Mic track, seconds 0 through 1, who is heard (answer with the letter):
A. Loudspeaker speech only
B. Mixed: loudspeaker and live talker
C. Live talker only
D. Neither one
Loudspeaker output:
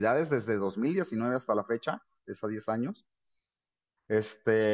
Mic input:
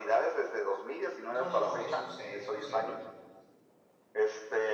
A